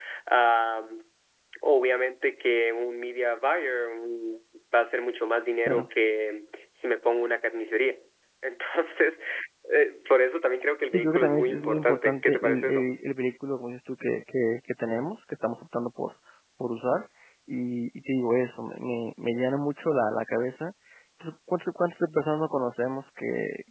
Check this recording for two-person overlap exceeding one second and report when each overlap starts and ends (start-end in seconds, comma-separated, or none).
10.9-12.9